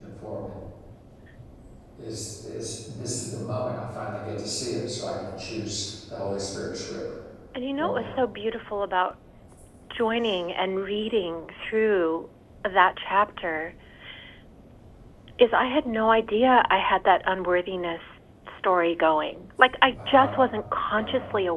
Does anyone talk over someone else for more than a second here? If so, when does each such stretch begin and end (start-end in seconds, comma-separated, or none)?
none